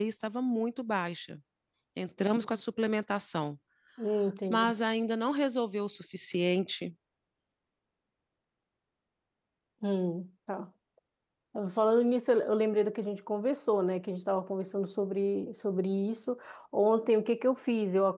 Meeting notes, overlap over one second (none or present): none